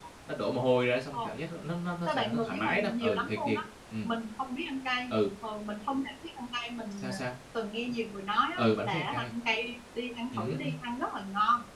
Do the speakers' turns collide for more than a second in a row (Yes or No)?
Yes